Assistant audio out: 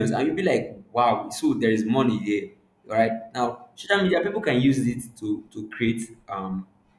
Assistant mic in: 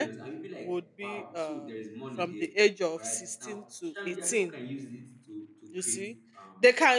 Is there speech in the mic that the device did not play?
Yes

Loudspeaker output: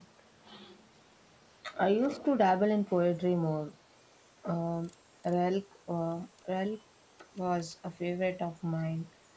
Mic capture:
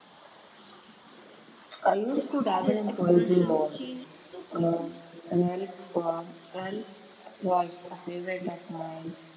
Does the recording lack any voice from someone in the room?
No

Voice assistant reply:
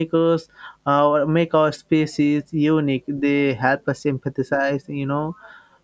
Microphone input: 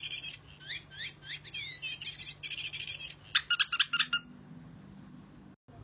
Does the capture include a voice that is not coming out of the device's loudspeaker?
No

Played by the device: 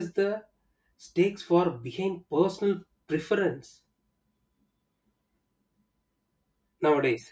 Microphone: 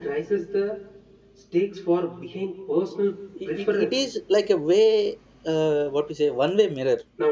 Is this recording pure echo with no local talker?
No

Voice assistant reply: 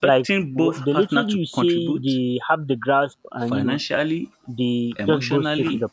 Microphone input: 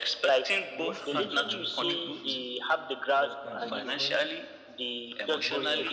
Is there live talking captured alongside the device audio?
Yes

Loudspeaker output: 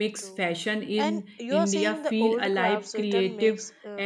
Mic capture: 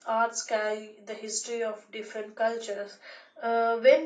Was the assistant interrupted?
Yes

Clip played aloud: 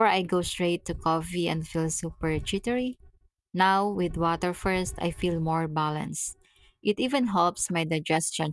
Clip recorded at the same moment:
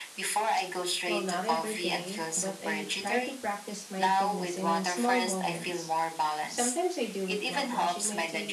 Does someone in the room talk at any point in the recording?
Yes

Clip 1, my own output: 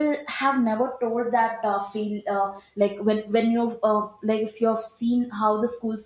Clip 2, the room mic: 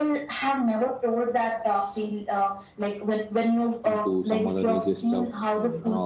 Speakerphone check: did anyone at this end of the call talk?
Yes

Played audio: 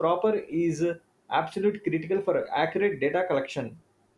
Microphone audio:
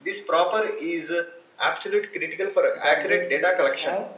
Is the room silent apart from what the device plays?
No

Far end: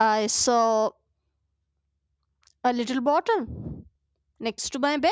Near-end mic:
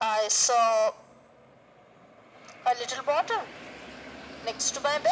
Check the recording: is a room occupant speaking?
No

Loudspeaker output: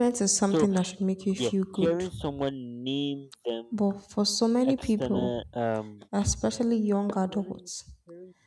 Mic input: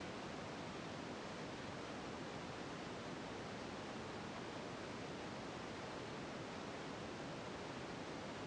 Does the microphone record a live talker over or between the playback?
No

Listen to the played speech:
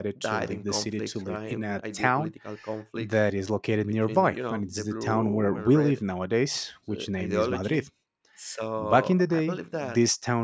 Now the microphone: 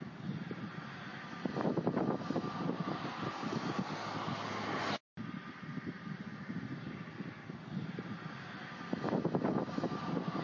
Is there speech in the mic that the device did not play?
No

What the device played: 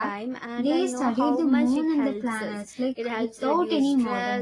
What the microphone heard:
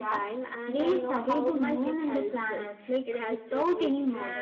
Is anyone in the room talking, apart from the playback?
No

